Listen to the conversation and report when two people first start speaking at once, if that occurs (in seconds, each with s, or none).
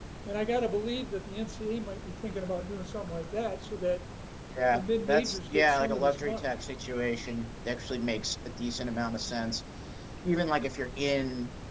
4.7 s